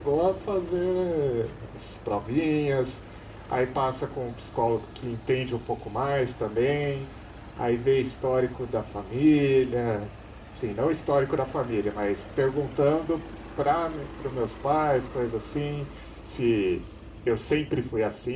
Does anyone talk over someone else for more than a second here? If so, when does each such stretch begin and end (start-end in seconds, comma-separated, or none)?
none